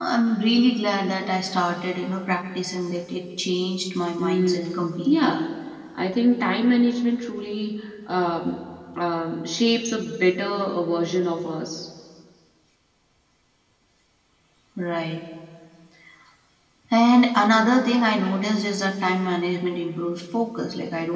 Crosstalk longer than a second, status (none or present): present